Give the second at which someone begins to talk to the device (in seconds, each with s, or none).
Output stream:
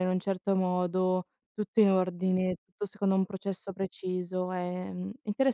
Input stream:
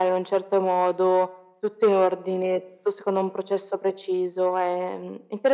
none